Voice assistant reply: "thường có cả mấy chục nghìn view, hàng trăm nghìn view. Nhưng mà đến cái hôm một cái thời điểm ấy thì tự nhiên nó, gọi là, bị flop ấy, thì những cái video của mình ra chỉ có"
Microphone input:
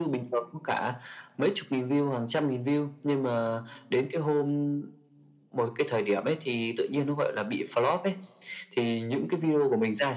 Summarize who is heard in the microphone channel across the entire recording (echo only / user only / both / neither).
echo only